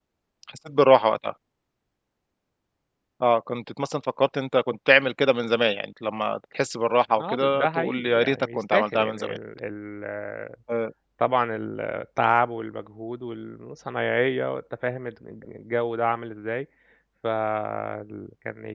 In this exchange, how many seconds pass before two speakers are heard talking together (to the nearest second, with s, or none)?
7 s